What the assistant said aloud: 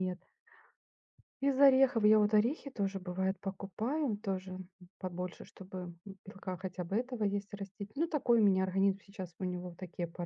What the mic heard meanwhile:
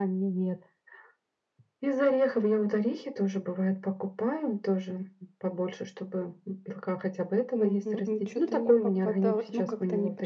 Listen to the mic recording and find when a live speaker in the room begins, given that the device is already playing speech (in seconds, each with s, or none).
7.5 s